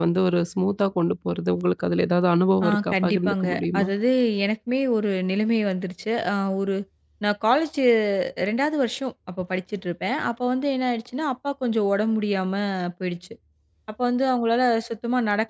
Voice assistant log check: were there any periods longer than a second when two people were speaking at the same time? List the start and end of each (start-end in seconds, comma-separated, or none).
2.6-3.9